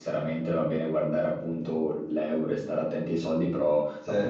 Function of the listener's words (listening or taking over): listening